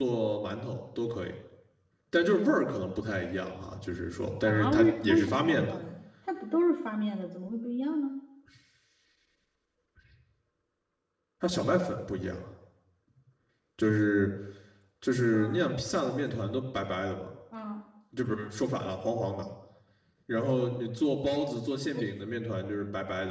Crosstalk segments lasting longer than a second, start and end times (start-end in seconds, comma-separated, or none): 4.4-5.8